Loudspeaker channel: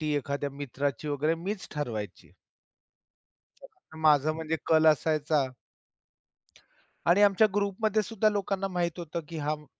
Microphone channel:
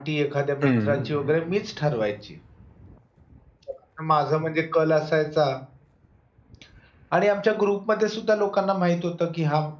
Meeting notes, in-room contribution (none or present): present